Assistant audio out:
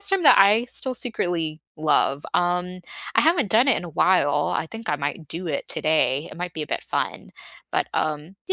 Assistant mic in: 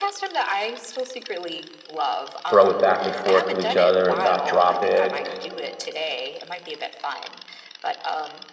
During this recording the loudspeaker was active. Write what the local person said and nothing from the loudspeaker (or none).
throw it back and forth to each other and not drop it.